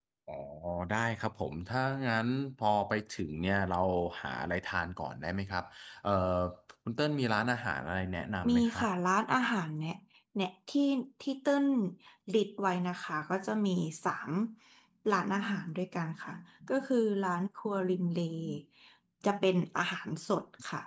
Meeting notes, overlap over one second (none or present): none